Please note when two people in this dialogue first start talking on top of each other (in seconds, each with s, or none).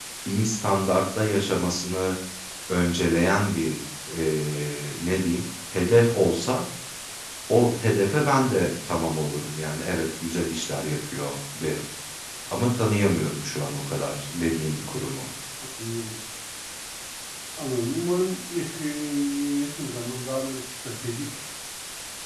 none